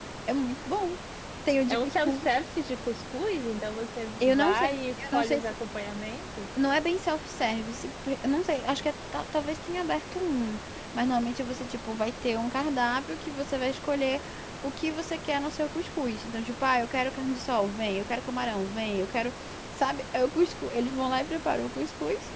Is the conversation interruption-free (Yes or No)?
No